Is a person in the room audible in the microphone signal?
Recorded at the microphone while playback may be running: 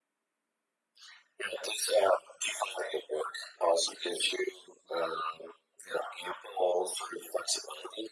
No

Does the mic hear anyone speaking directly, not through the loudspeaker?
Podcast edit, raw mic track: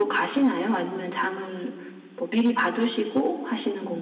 No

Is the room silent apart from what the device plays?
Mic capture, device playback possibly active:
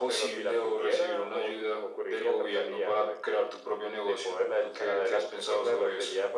Yes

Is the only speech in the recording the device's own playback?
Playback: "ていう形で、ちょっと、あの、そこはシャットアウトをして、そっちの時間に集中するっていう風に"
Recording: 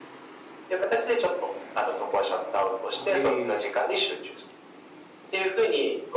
No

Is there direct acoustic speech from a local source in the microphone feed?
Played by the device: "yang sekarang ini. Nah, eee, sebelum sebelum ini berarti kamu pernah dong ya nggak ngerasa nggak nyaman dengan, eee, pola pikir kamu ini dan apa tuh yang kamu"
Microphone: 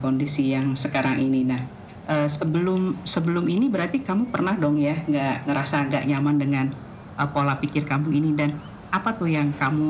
No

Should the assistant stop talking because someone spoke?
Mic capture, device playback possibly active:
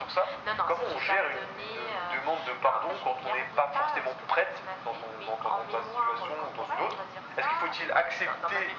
No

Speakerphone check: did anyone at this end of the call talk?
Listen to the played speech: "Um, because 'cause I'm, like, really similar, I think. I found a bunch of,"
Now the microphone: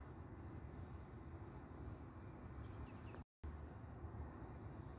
No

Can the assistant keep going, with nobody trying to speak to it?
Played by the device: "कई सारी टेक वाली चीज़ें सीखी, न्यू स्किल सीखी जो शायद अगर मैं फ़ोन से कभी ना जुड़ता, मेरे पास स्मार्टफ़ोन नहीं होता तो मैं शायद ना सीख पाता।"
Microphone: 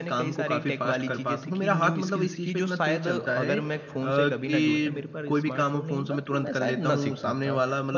No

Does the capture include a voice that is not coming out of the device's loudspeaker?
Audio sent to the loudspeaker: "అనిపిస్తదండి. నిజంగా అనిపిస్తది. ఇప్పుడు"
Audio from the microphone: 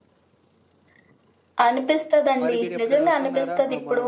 Yes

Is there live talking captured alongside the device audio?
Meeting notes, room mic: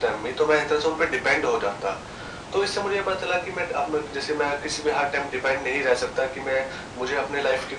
No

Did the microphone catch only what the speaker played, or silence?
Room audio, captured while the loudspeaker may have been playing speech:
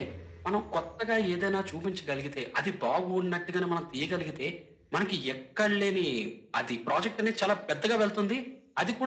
Yes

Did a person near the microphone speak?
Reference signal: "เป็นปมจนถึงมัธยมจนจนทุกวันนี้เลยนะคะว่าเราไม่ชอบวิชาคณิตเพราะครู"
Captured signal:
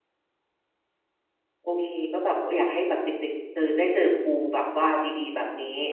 Yes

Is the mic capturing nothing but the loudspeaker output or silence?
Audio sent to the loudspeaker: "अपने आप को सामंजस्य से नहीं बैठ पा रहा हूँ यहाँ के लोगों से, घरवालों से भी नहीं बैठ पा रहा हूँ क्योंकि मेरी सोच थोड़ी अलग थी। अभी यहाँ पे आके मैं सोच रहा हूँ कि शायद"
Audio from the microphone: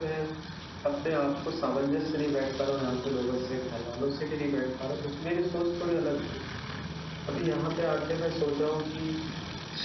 Yes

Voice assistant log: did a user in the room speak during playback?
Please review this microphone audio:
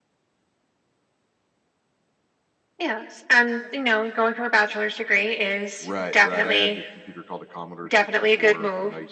Yes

